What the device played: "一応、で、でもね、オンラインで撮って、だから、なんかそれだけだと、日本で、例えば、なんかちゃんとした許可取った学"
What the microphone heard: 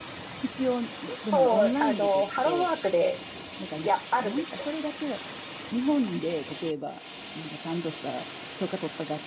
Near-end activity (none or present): present